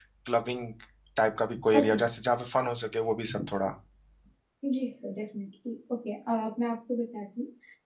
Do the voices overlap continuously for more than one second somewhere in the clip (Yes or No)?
No